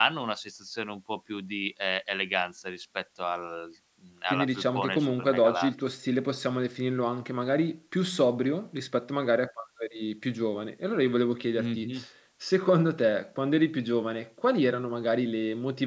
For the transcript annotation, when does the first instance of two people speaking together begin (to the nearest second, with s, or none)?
4 s